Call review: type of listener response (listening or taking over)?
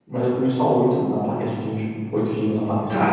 taking over